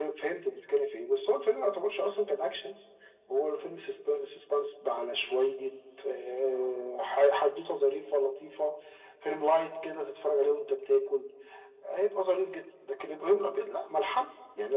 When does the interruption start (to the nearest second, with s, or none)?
none